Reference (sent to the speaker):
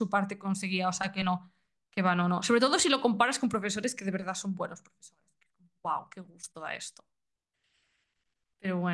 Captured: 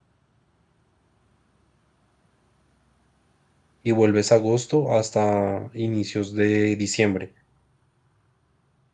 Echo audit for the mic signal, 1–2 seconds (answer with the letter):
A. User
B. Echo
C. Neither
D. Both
C